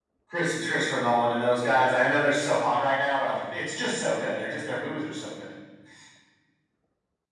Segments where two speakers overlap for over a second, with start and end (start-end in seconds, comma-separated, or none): none